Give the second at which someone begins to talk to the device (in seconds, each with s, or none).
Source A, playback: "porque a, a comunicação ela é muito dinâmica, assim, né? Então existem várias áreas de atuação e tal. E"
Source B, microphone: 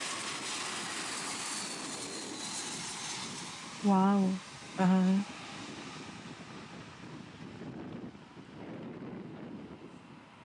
3.8 s